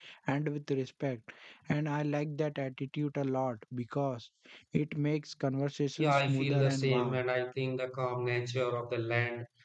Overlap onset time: 6 s

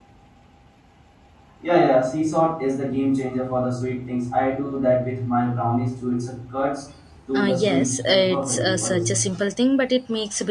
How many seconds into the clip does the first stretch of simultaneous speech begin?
7 s

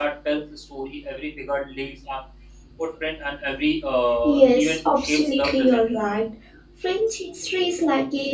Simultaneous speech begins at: 4 s

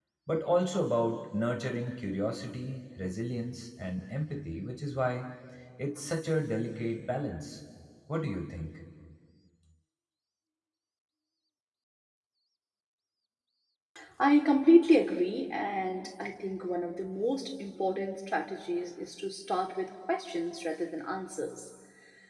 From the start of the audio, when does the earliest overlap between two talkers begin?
none

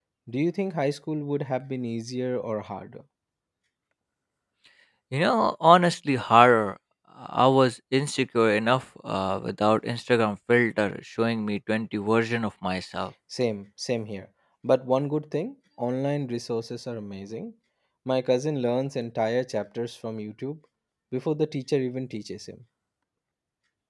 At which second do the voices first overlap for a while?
none

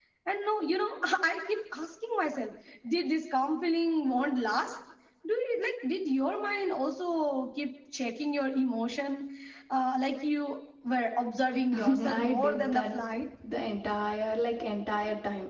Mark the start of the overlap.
12 s

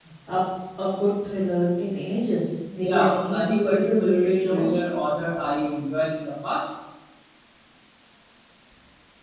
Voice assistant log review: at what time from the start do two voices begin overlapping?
3 s

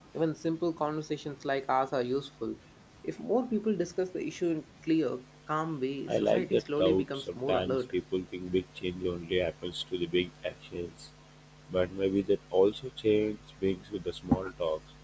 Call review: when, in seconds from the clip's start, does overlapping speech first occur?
6 s

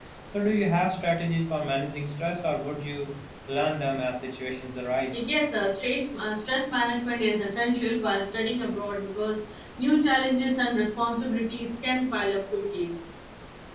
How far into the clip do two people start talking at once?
none

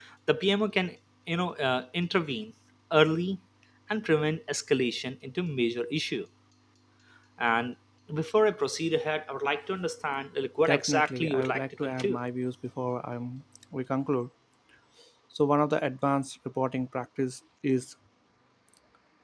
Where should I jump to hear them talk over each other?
11 s

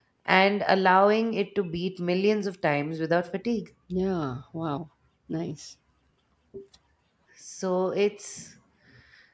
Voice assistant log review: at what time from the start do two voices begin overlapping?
none

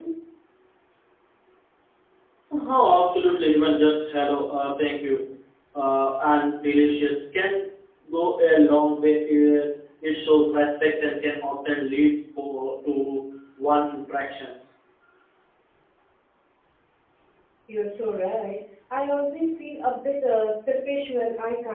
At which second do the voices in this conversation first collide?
none

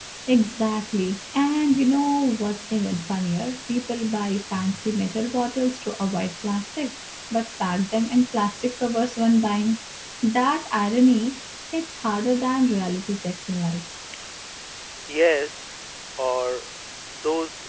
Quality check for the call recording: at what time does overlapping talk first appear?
none

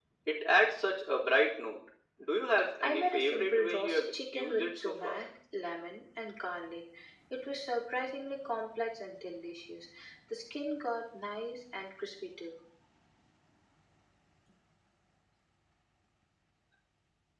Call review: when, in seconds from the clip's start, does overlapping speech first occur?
3 s

